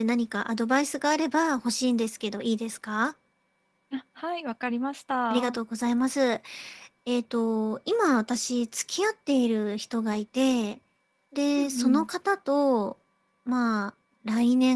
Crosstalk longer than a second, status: none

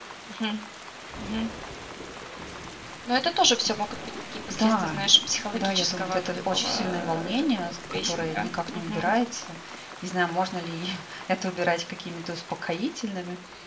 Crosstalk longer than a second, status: present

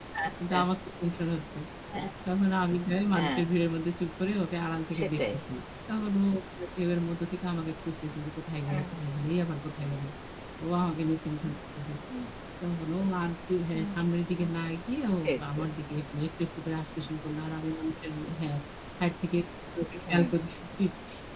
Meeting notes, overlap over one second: none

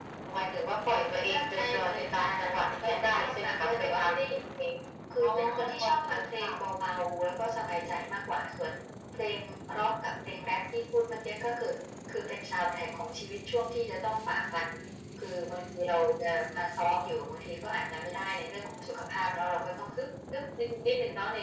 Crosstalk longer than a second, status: present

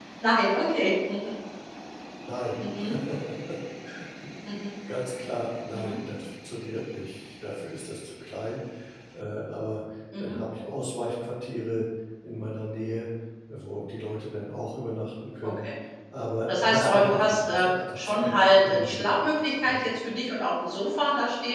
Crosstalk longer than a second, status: present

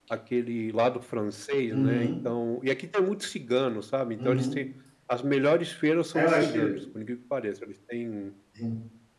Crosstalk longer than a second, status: none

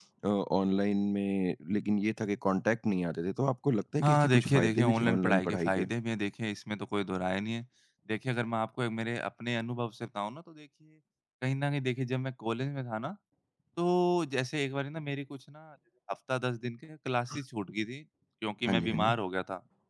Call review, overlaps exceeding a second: present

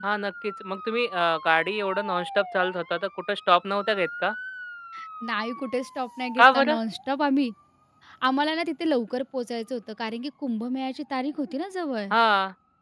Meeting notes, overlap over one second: none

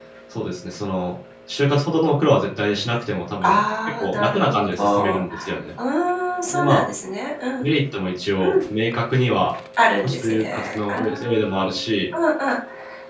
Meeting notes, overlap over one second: present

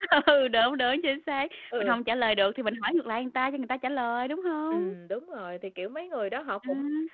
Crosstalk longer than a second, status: none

